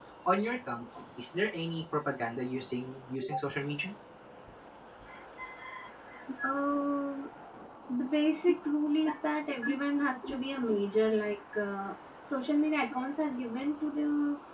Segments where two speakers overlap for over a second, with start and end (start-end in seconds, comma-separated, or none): none